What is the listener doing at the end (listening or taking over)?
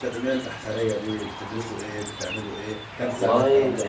taking over